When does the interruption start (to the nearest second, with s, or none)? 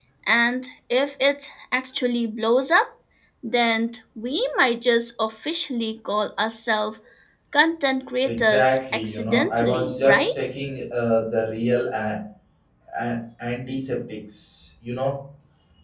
8 s